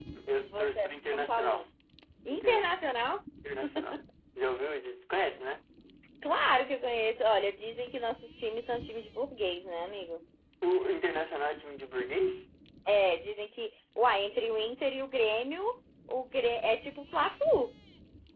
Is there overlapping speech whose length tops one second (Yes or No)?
Yes